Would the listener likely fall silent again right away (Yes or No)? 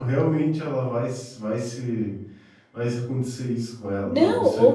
No